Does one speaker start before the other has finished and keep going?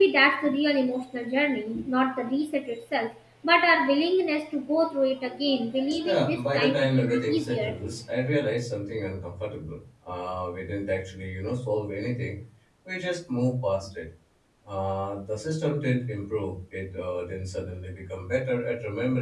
Yes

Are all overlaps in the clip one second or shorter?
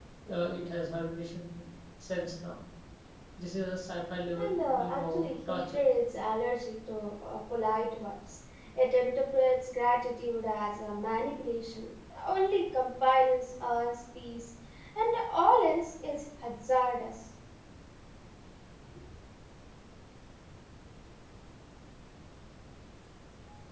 No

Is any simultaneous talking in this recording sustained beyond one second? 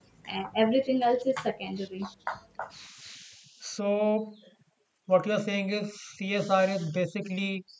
No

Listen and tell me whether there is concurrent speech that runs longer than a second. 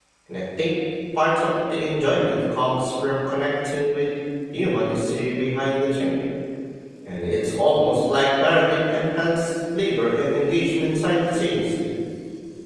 No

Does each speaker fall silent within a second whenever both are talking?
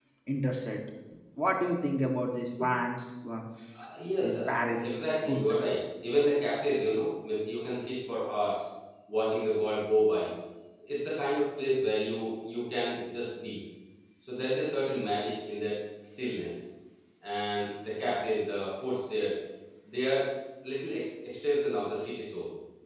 No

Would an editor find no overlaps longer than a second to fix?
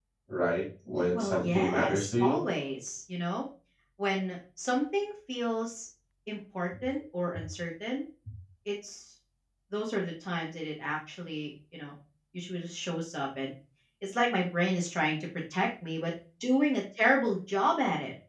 No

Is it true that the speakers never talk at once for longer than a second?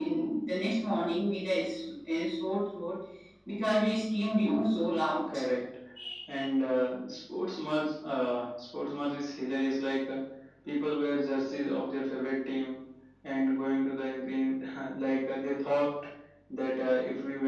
Yes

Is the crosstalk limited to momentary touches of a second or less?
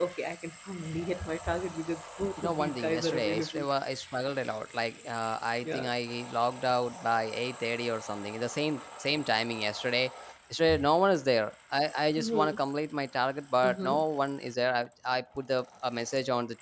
No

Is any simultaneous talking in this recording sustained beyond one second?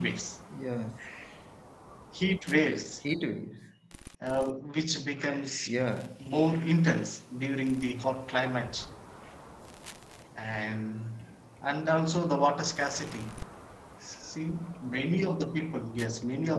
No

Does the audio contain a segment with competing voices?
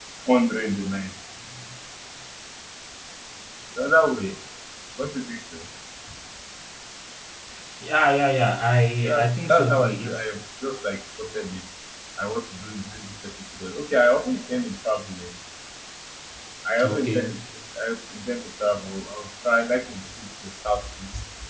Yes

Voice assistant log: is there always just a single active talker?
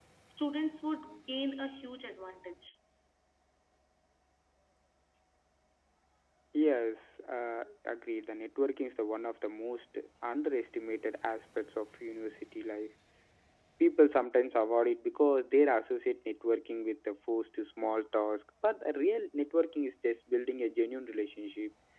Yes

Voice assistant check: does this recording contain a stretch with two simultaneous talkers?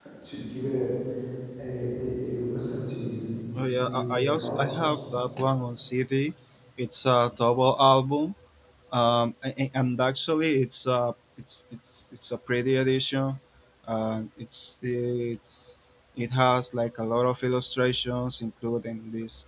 Yes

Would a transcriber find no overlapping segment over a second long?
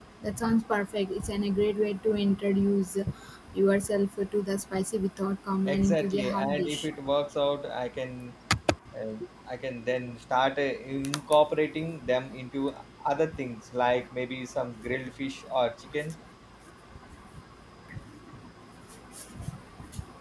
No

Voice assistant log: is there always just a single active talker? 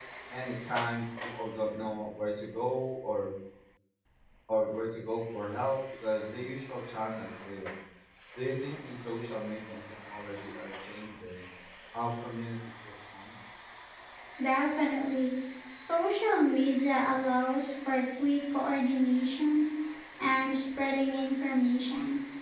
Yes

